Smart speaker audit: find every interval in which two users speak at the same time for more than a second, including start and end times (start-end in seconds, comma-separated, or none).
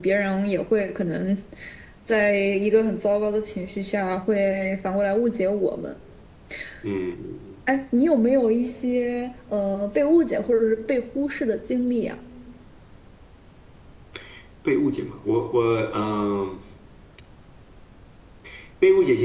none